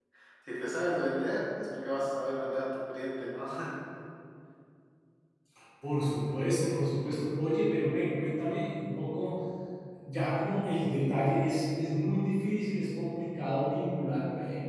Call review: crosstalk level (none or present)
none